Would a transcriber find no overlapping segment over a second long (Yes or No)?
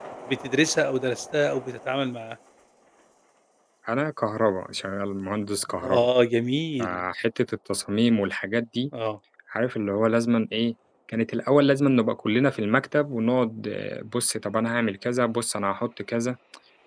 Yes